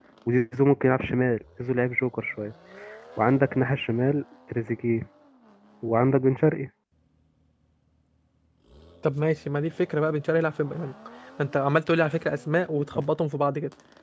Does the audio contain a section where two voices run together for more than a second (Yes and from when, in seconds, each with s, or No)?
No